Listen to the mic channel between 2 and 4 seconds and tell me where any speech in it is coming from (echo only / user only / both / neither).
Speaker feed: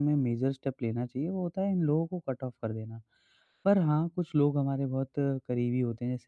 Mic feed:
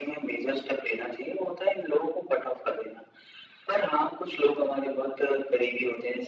echo only